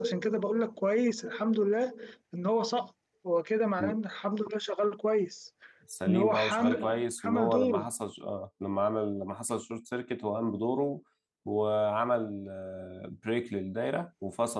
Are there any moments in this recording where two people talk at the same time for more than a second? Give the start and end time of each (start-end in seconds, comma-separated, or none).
6.1-7.9